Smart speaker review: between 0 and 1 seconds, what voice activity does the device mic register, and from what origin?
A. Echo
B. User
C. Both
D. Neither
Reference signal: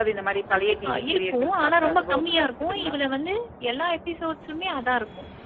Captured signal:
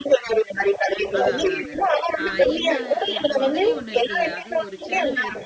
A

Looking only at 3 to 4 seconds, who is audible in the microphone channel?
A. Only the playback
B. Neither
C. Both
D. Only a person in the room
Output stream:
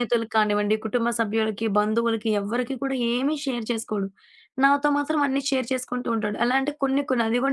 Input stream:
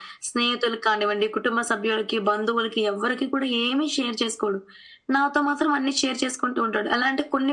A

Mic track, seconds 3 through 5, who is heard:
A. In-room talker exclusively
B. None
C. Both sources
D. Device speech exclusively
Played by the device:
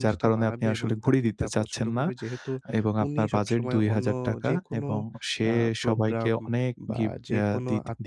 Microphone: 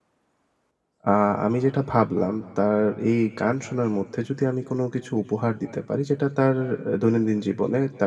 A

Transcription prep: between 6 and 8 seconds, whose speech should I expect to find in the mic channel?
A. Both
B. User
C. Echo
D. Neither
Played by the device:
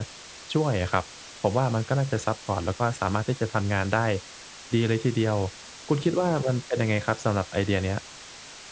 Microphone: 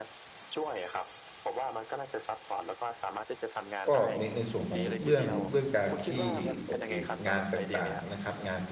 A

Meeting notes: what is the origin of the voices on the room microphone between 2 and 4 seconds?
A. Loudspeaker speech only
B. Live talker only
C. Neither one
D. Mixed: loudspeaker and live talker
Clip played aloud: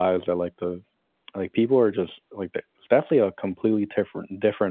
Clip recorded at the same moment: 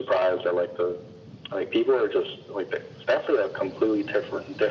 A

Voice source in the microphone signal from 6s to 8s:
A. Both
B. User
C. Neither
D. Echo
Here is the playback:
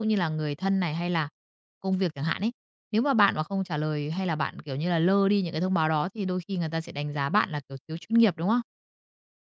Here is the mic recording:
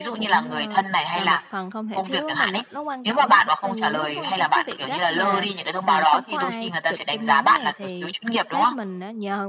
A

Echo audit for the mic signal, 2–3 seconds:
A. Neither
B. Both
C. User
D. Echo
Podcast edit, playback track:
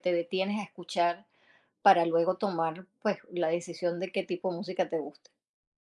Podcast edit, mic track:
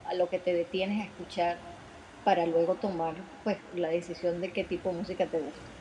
D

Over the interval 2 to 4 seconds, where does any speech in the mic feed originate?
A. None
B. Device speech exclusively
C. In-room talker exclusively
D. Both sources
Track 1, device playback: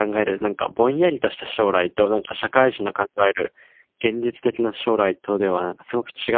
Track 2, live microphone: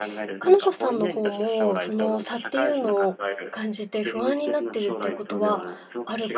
D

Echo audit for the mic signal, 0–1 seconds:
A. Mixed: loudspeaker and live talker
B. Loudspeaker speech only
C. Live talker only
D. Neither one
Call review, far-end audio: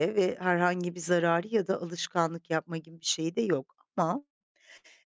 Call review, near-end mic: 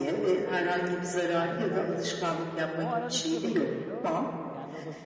B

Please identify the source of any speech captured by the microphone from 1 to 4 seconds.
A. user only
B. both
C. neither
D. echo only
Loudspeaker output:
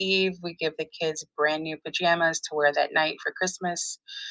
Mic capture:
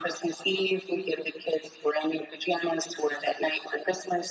D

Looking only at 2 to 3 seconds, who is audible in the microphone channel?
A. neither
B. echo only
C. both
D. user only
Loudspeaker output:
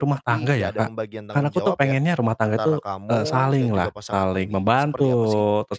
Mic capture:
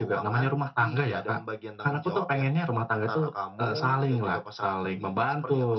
B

